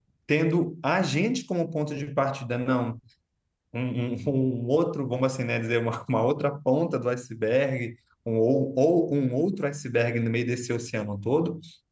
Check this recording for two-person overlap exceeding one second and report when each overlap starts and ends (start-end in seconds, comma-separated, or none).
none